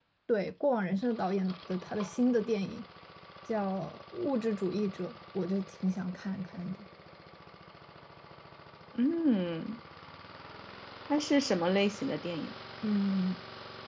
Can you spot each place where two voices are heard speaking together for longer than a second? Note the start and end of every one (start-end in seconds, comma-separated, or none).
none